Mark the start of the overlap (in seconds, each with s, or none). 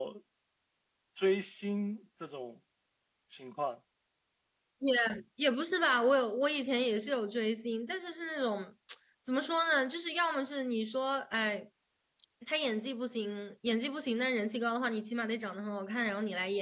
none